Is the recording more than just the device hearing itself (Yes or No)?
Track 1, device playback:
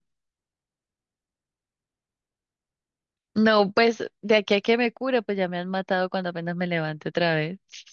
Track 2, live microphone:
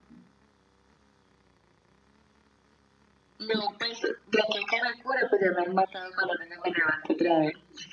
No